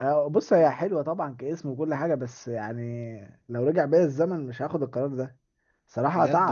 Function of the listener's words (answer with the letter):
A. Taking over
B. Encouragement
B